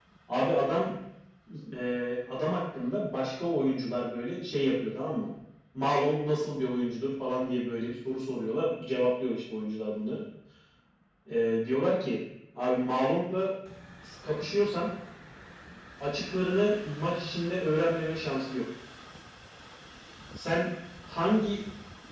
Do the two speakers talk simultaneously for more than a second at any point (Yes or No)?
No